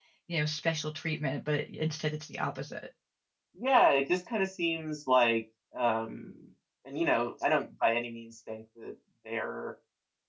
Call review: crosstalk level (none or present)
none